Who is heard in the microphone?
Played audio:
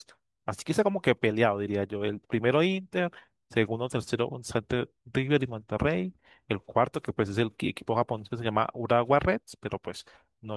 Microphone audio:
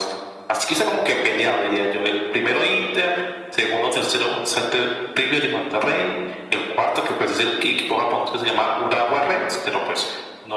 echo only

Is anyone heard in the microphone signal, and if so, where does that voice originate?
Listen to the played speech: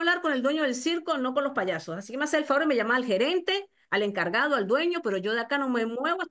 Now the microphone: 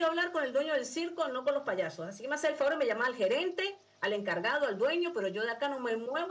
echo only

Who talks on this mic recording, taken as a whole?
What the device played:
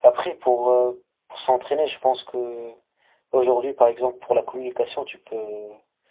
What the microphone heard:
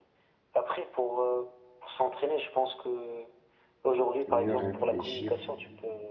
both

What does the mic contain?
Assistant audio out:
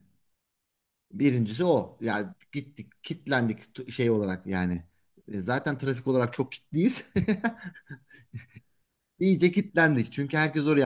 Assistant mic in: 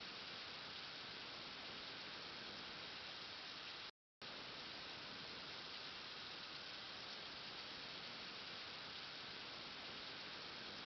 neither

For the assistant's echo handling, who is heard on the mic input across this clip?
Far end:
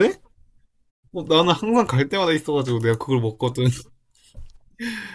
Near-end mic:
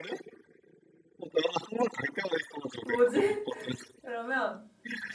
both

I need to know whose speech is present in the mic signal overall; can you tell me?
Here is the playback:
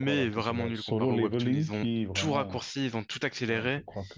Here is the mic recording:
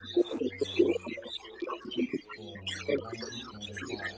both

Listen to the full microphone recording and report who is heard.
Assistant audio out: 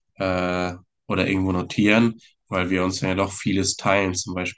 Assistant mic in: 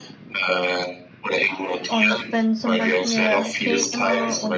both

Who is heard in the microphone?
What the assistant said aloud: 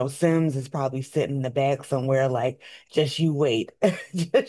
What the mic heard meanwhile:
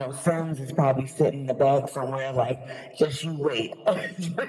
echo only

